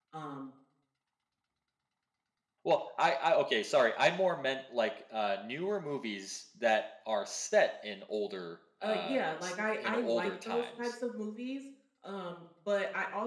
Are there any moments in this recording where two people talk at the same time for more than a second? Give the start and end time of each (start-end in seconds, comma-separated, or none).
8.8-10.9